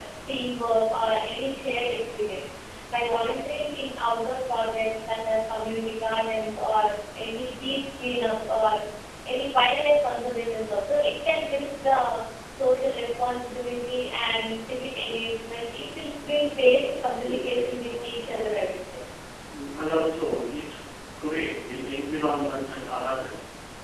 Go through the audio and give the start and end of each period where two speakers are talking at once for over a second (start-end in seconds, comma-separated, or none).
17.2-18.7